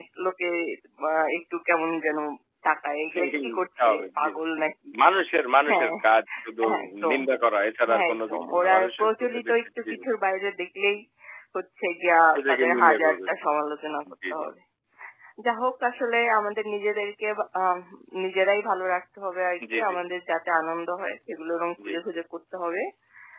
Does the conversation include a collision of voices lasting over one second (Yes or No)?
Yes